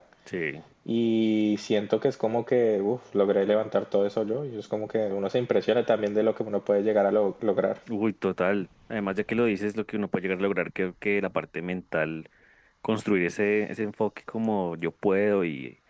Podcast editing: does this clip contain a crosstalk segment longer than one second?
No

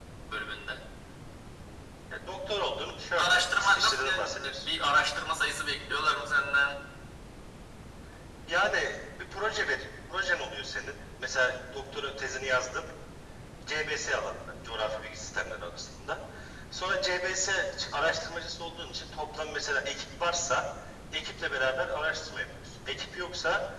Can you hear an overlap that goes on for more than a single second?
Yes, from 3.2 s

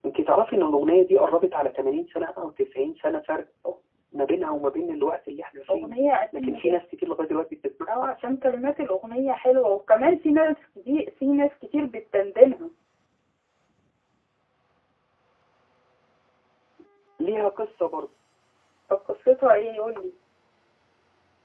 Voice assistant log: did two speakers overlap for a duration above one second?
No

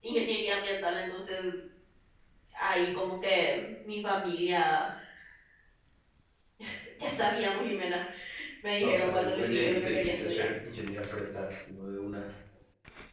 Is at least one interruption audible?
Yes, from 8.8 s

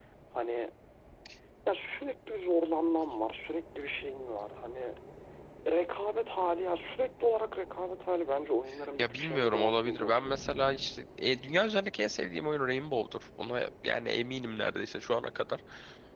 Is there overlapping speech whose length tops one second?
Yes, from 9.0 s

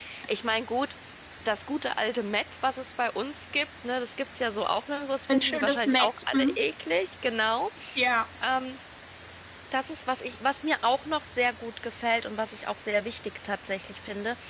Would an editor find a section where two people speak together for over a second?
Yes, from 5.3 s

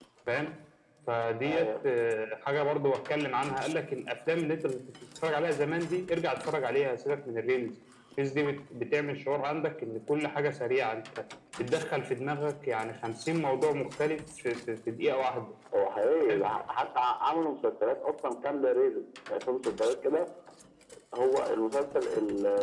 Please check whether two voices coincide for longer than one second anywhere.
No

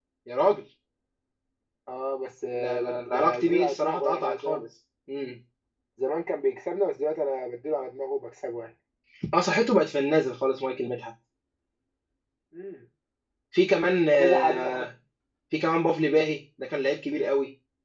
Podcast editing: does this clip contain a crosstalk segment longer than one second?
Yes, from 2.6 s

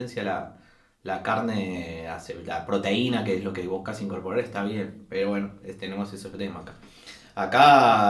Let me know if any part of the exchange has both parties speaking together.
No

